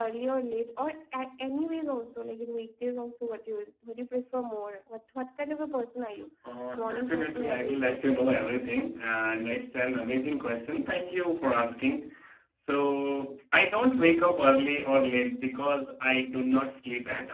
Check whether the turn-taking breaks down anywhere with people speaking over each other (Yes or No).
Yes